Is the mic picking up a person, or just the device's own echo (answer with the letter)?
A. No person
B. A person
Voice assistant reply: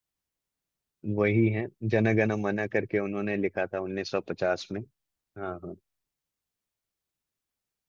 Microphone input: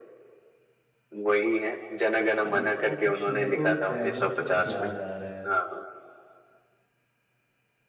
B